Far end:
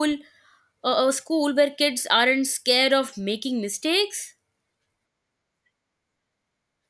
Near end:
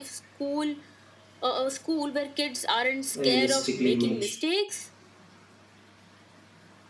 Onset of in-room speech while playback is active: 3.1 s

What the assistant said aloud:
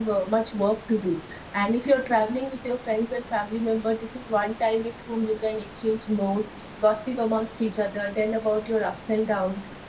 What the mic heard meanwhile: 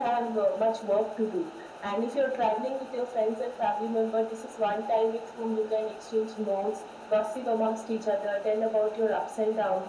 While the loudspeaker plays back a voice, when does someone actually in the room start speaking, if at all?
none

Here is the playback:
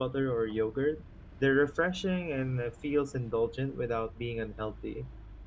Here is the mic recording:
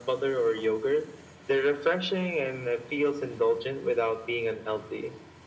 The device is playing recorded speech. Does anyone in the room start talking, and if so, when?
none

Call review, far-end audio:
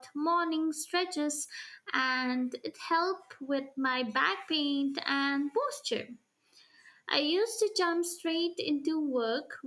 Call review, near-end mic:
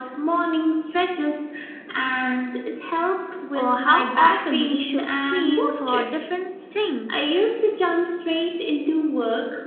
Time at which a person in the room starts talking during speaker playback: 3.5 s

